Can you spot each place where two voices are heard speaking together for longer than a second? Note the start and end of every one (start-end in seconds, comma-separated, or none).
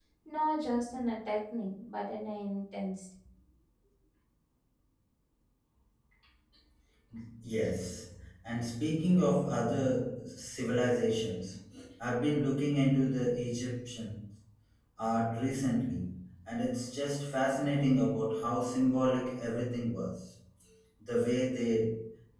none